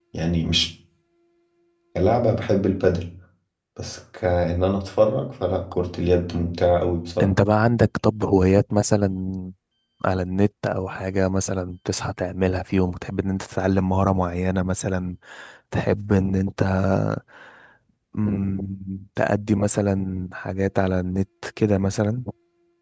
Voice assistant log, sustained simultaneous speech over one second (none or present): none